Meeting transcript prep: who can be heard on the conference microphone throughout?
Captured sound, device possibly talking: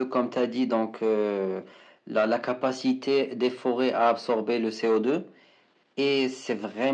echo only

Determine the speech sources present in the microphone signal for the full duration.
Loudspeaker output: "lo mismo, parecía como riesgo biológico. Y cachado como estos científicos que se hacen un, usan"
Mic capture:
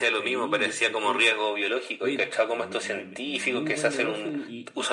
both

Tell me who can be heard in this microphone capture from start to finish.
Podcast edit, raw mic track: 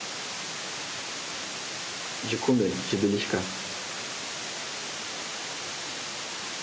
user only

